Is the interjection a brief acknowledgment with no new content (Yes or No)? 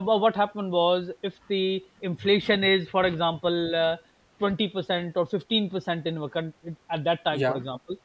Yes